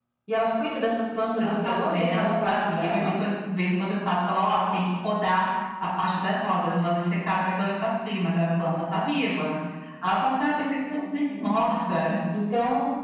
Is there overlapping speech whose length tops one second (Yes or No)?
Yes